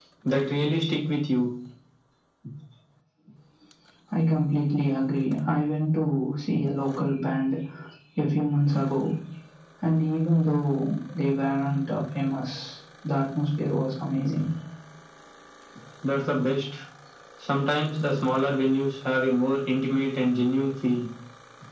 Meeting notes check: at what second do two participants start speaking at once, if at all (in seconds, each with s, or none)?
none